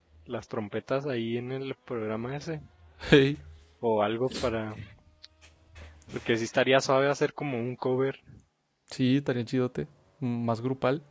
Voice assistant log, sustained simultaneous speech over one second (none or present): none